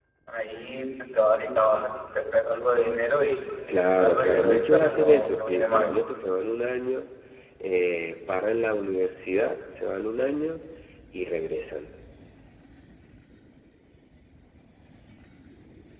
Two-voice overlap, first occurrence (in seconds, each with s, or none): 4.0 s